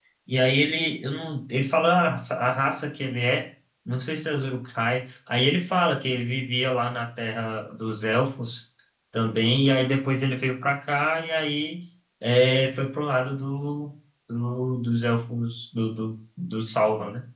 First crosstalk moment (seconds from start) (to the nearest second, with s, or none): none